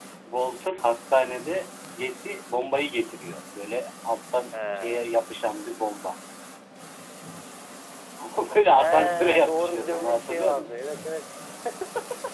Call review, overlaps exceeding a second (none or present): present